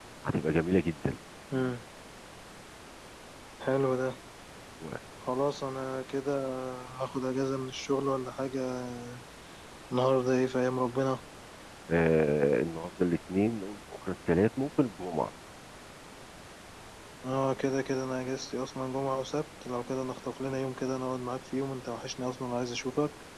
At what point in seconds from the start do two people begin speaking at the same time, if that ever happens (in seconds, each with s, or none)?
none